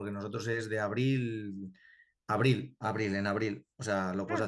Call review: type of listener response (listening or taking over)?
listening